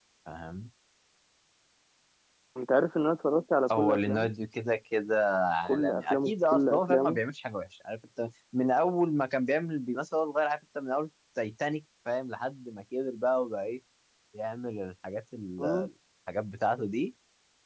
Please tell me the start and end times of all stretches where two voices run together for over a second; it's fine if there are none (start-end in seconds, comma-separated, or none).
5.7-7.2